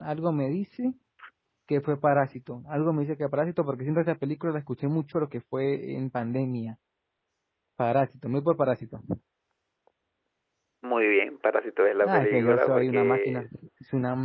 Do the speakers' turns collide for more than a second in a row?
Yes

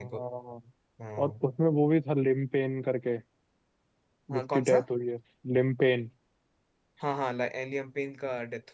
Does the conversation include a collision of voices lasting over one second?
No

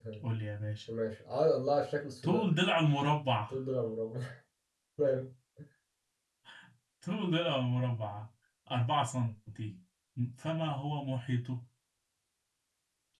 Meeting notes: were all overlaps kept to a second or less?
Yes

